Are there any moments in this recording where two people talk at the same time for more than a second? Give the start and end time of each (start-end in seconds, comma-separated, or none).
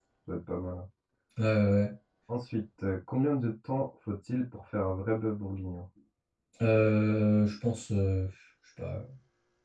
none